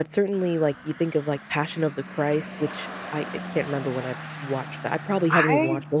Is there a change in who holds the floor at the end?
Yes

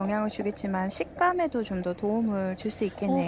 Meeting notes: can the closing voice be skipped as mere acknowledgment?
No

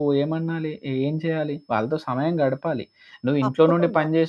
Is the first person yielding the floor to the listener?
No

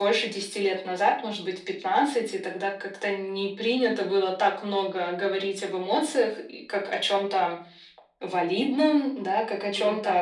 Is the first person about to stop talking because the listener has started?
No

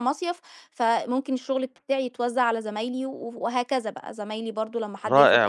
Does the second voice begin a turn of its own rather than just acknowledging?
Yes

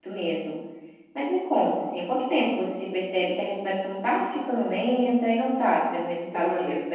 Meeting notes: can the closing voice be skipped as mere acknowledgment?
No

